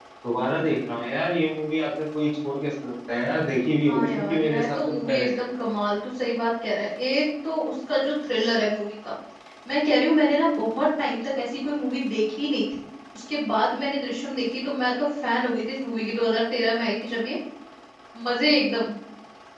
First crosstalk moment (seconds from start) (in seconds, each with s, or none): 3.8 s